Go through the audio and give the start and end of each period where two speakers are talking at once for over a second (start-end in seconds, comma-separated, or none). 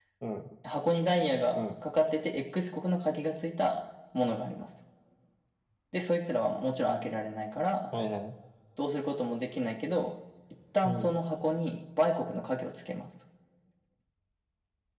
none